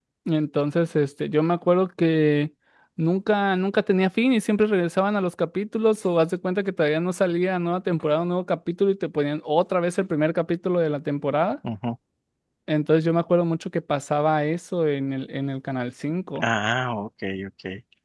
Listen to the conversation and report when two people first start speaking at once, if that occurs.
none

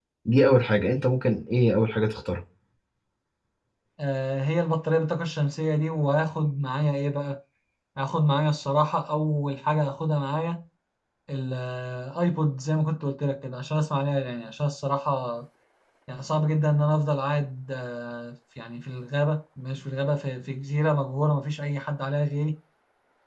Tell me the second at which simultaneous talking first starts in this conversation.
none

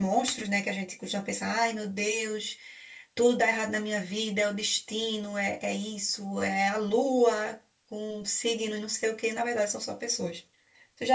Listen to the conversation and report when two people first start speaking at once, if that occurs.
none

